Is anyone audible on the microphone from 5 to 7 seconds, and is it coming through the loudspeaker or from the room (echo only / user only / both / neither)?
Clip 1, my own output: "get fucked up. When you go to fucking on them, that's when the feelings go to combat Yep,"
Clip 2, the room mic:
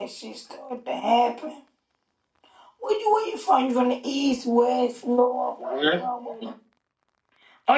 user only